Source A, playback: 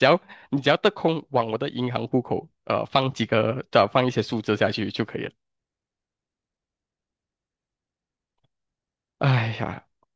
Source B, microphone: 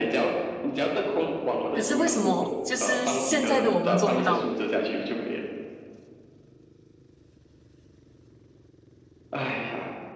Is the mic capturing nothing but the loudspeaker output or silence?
No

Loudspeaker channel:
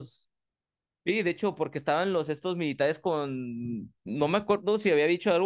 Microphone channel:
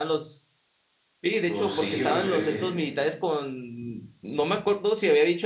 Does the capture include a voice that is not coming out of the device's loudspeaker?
Yes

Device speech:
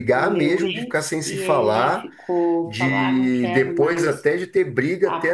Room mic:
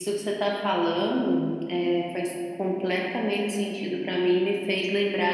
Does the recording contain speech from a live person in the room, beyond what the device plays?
Yes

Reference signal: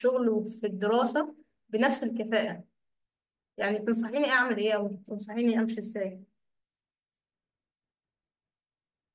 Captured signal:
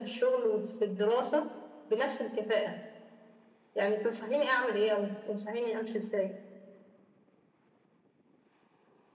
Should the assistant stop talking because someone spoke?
No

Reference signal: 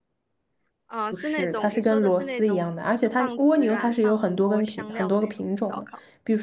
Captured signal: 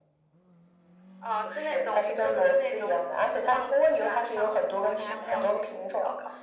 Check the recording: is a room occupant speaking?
Yes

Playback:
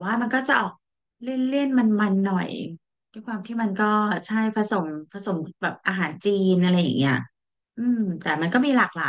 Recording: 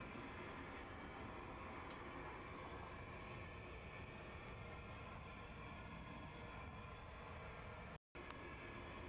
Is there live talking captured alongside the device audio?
No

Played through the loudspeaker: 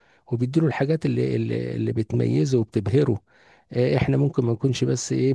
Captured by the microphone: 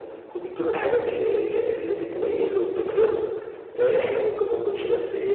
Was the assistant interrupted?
No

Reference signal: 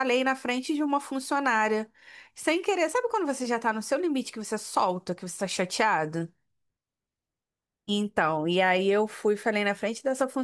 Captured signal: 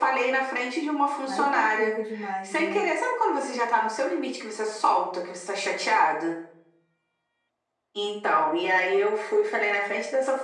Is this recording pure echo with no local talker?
No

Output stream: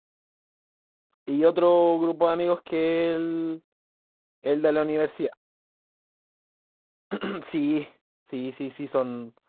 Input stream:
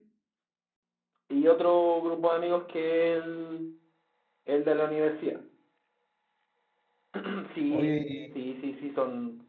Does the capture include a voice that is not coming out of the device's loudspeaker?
Yes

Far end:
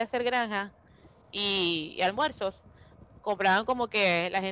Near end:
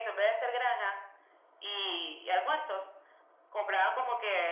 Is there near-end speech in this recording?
No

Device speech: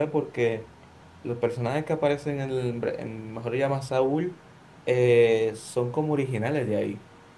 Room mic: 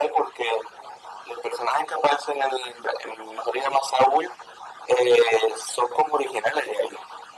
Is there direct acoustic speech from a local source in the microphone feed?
No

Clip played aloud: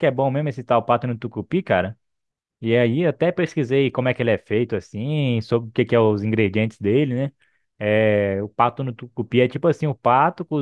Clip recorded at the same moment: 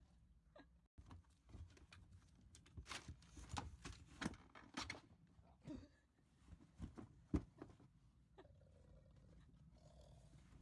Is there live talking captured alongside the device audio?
No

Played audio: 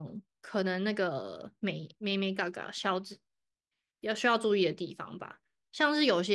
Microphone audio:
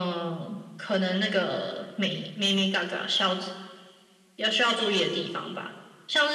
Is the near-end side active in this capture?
No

